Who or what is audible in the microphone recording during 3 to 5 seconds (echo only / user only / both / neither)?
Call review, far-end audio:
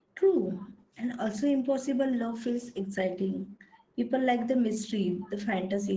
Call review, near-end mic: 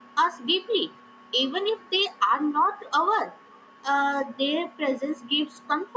user only